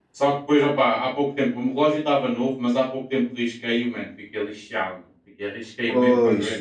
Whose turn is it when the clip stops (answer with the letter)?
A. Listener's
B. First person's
B